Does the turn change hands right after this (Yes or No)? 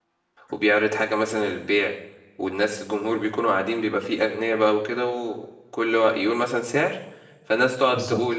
No